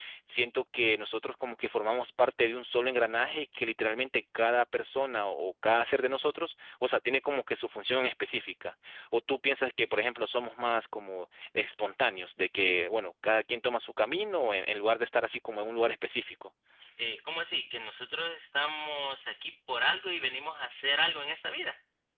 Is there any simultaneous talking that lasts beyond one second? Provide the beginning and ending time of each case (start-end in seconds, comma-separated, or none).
none